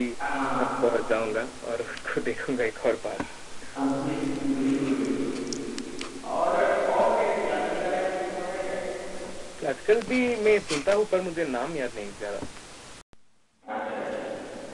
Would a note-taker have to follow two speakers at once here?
No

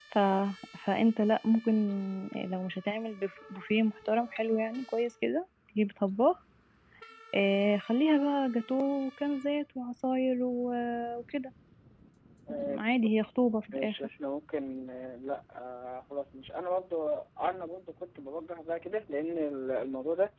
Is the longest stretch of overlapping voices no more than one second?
No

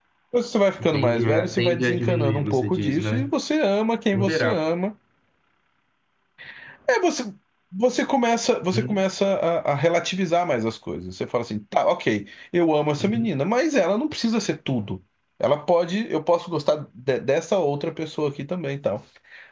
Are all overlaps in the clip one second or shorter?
No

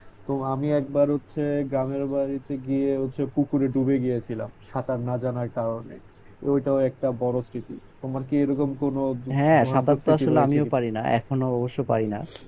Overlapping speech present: Yes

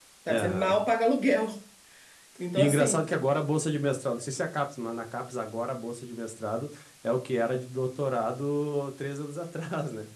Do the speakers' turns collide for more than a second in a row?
No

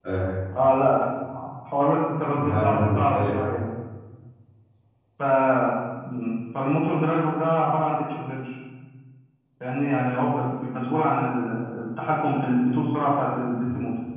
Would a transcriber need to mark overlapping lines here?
Yes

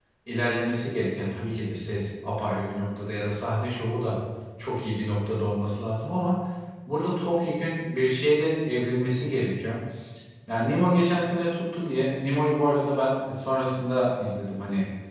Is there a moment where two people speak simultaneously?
No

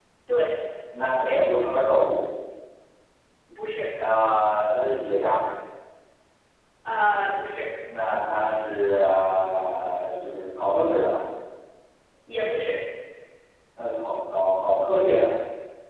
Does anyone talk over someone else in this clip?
No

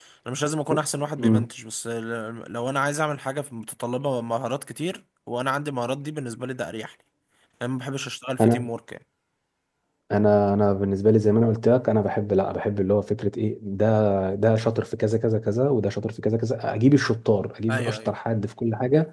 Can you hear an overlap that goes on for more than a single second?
No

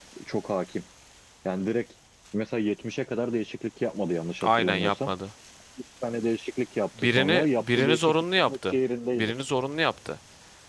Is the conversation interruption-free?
No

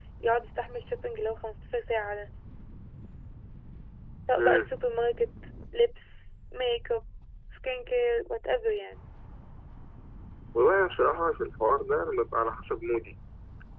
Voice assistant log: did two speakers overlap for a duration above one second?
No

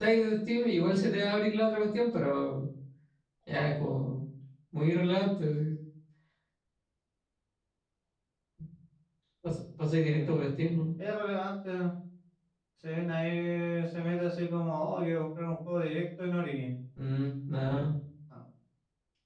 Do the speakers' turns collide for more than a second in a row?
No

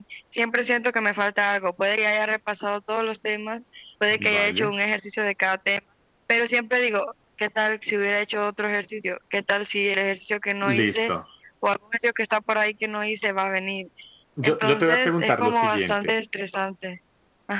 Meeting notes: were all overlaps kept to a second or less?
No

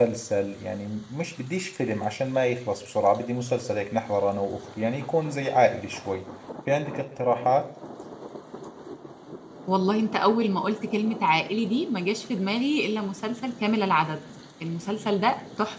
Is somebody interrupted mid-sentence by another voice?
No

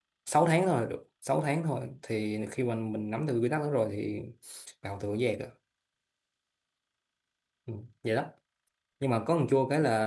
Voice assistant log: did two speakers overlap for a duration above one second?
No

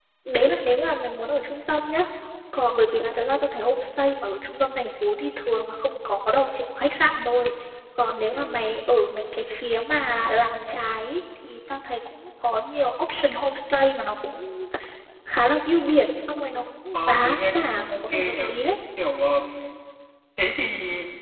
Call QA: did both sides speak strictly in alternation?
No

